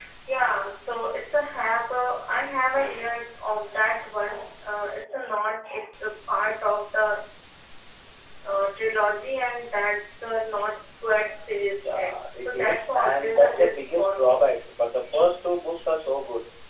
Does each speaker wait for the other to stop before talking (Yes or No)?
No